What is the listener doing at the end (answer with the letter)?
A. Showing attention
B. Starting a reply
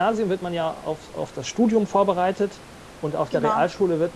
A